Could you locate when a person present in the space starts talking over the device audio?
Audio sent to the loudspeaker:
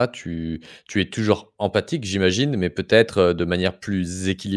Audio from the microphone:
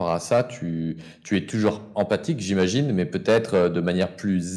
none

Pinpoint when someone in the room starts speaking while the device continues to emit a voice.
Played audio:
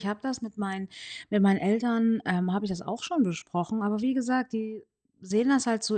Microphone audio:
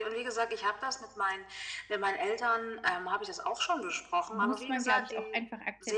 4.3 s

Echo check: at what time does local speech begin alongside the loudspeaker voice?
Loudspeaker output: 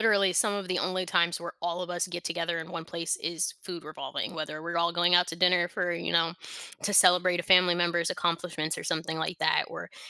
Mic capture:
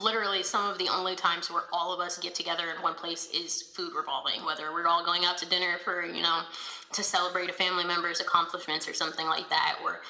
none

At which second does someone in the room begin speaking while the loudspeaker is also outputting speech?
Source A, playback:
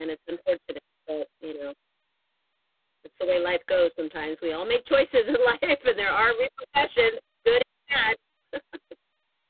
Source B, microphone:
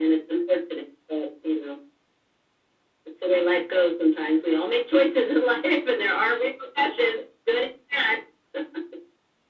none

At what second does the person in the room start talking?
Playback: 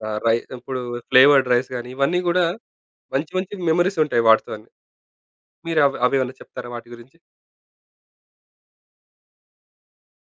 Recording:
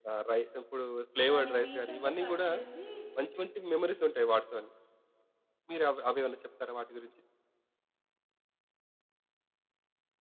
1.3 s

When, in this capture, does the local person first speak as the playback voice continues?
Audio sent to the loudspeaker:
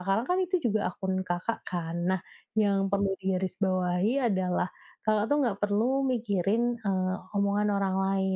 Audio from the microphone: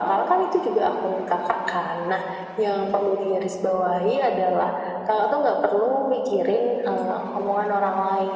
none

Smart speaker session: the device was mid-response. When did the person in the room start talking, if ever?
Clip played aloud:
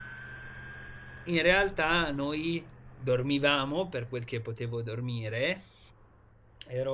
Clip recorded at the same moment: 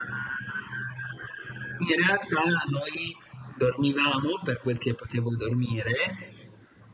none

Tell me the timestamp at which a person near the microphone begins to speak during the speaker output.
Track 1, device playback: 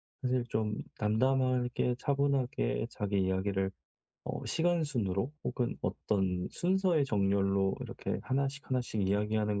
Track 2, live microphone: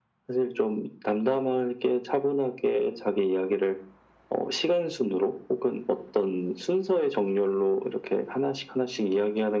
none

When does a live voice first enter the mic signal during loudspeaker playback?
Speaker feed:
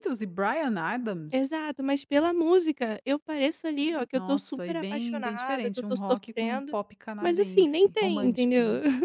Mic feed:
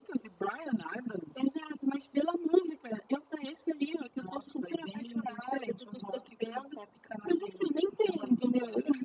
none

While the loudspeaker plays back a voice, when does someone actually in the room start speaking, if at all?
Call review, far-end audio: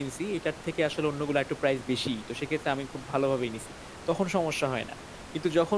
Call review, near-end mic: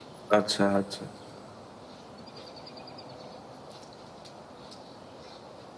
0.4 s

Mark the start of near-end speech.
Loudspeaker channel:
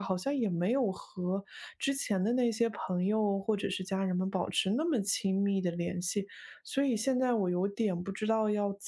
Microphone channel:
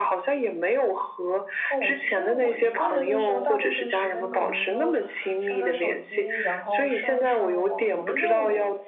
1.7 s

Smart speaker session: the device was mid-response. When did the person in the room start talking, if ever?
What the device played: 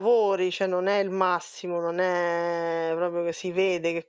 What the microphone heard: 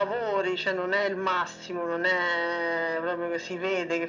none

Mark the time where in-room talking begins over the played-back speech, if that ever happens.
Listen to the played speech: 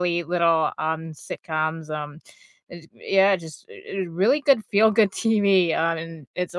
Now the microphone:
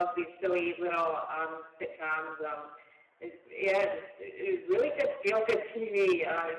none

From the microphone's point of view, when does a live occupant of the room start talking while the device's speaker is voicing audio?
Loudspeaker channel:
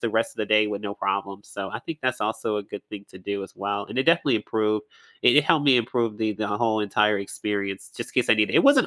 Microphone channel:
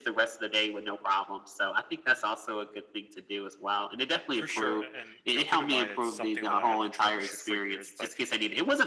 4.3 s

